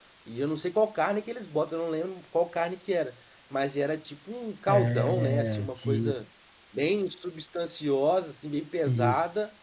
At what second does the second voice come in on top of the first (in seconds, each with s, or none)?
4.7 s